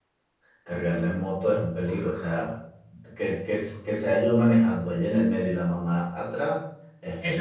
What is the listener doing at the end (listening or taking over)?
taking over